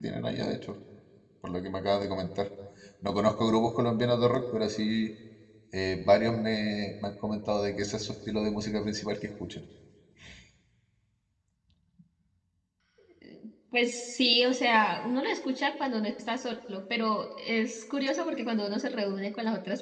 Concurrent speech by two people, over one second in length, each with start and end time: none

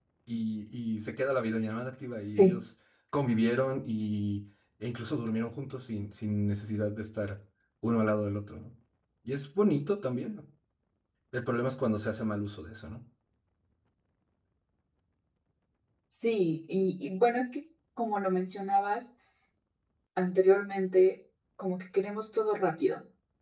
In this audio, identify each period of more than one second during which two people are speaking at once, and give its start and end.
none

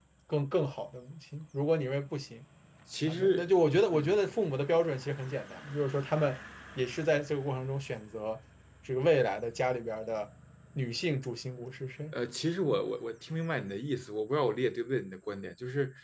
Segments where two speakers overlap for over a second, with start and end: none

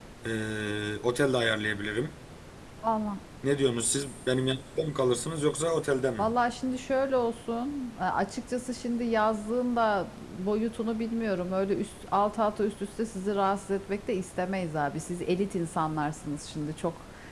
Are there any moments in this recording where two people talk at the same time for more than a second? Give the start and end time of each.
none

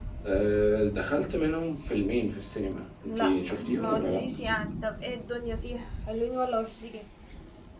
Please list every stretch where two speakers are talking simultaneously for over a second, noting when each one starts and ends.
3.0-4.3

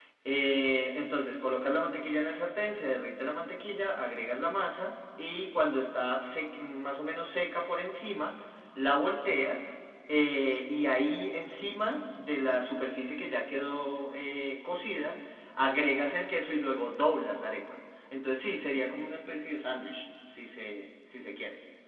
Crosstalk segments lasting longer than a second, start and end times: none

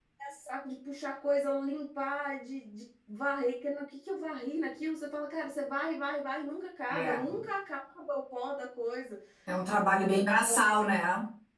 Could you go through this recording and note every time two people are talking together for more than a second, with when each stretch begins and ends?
none

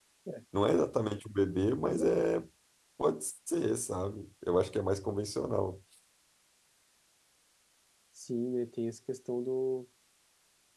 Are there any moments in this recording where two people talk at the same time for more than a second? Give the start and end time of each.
none

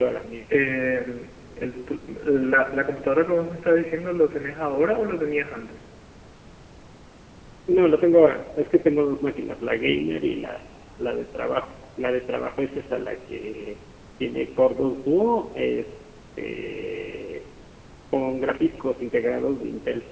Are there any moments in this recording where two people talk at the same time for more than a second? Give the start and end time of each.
none

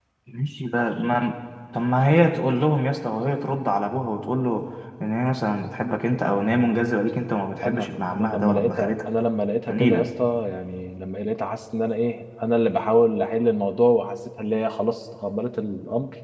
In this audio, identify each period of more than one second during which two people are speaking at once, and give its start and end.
7.6-9.0

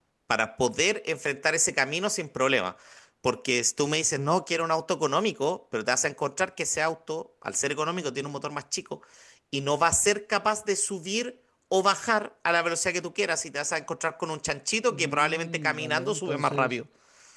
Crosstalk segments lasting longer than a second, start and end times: 14.9-16.8

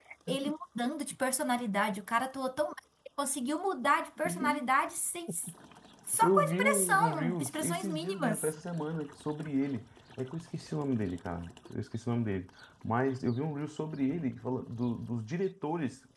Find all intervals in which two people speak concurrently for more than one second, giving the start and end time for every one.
6.2-8.5

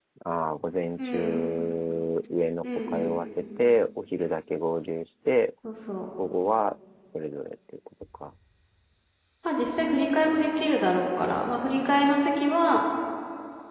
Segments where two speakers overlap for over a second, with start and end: 9.9-11.7

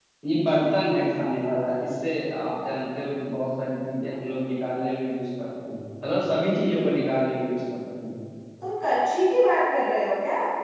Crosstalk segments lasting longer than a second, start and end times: none

